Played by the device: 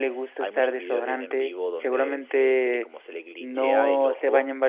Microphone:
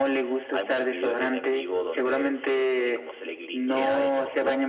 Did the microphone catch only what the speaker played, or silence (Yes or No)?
Yes